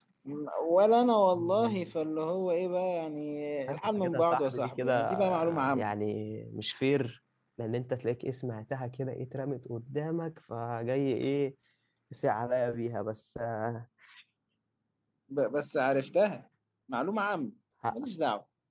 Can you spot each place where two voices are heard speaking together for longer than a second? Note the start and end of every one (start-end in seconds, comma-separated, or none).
3.7-5.9